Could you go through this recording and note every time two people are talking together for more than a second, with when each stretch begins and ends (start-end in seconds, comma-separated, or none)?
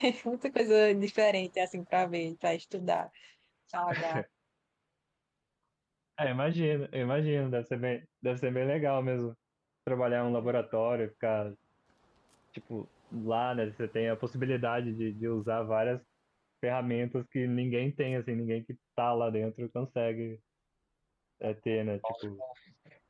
none